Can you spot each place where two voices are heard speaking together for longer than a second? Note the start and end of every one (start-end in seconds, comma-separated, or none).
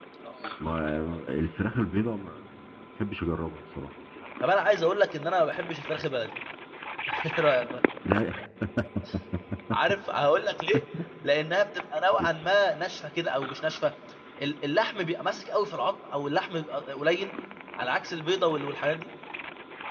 none